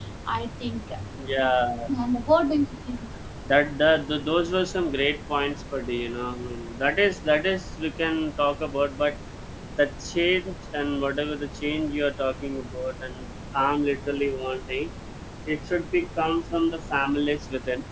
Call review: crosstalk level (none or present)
none